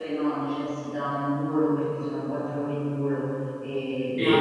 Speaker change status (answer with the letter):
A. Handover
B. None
A